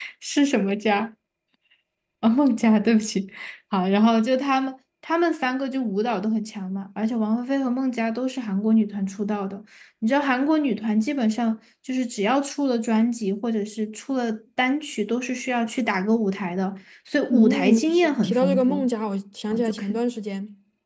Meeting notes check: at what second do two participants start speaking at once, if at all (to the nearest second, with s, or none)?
17 s